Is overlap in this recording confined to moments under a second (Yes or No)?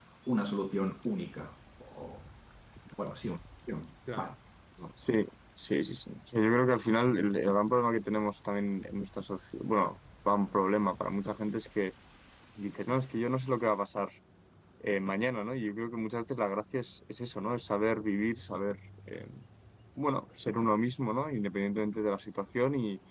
Yes